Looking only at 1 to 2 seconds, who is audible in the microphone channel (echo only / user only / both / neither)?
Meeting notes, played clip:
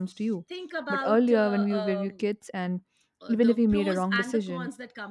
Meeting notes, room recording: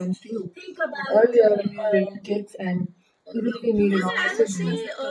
echo only